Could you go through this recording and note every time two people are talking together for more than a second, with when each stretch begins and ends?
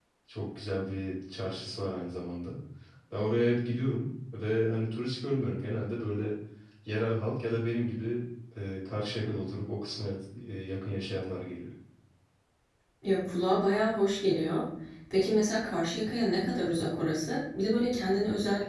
none

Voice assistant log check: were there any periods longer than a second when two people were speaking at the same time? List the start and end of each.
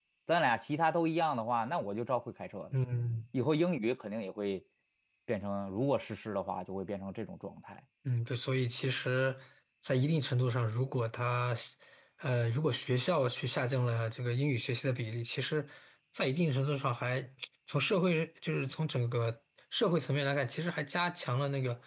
none

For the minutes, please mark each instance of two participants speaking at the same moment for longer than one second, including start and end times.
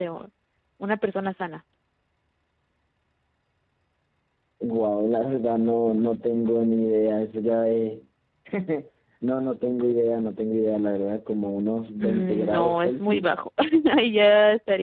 12.0-13.2

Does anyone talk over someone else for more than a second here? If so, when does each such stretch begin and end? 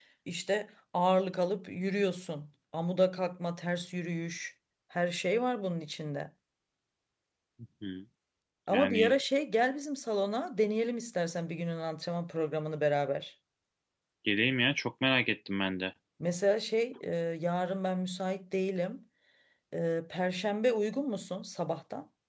none

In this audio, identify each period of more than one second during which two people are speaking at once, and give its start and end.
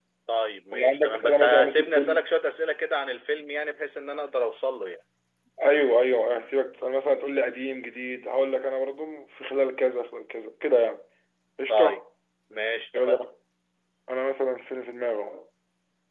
0.7-2.2

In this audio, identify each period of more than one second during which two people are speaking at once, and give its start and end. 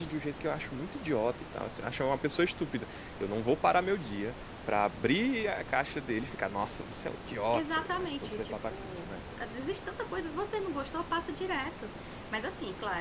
7.5-9.1

